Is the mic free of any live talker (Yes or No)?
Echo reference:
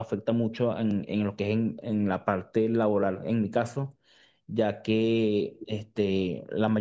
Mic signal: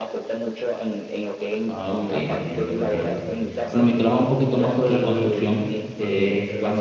No